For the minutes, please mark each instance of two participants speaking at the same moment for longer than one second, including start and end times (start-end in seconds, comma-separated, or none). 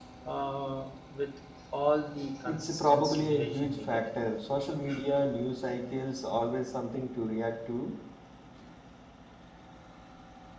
2.4-4.0